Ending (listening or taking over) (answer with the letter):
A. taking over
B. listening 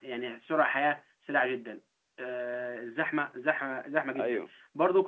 B